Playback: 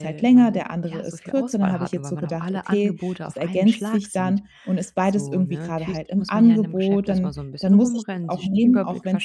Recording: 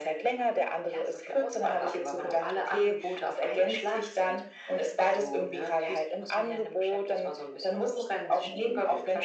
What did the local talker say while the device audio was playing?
none

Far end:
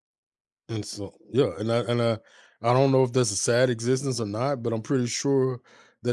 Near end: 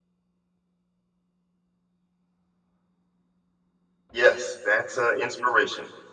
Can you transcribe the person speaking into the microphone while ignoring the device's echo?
Yes, that's an inspiration.

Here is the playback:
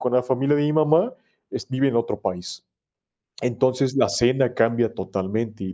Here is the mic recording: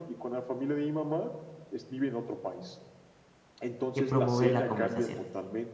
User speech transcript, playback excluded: que promover la conversación.

